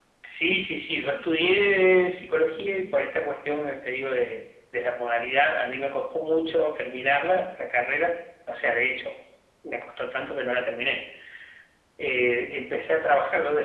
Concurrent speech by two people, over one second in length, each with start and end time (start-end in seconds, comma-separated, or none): none